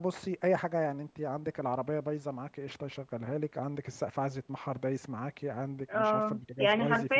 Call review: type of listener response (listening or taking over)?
taking over